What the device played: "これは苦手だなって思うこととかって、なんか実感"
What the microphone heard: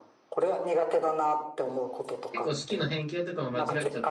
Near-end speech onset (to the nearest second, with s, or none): 2 s